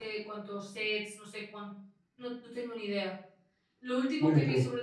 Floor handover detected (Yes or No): No